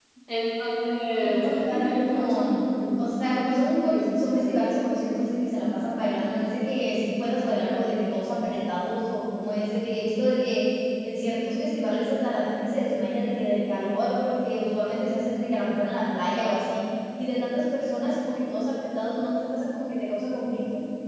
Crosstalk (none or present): present